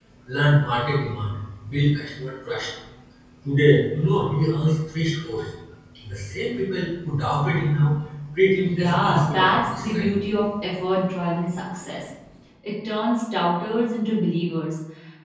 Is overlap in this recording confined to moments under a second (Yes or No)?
No